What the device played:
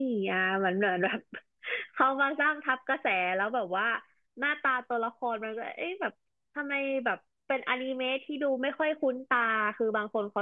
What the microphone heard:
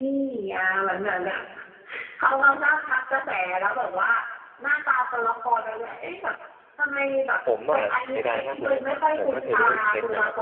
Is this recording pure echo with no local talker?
No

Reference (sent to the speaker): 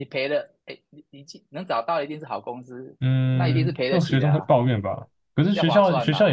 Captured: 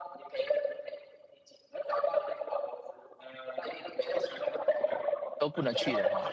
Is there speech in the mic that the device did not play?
Yes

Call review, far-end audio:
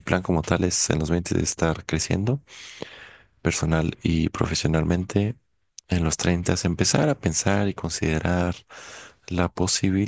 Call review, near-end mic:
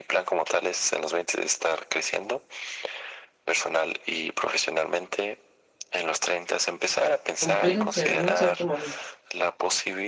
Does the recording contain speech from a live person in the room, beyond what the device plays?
Yes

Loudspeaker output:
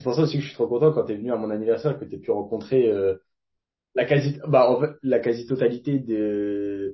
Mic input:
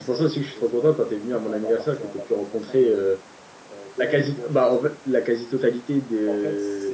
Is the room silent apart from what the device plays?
No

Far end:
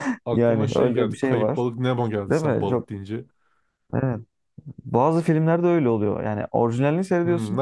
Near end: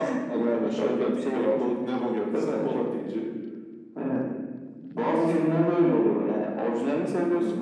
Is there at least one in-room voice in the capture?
No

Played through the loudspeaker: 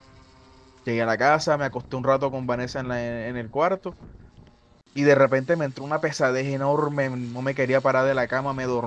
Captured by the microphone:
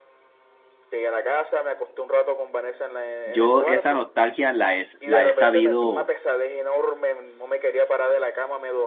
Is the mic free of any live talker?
No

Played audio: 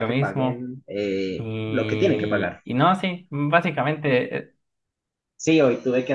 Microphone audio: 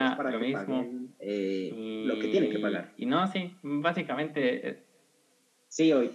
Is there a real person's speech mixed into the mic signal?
No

